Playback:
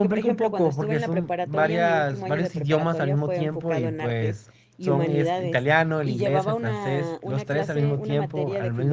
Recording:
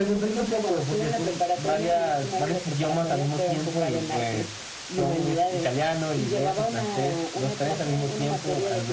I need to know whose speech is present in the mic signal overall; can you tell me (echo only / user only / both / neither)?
echo only